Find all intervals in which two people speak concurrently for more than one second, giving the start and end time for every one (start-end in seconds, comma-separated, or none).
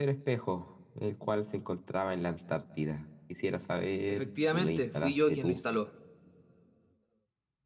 4.1-5.6